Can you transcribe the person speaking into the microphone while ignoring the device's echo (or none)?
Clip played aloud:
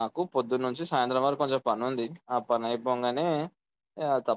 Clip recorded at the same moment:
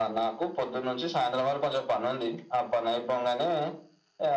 none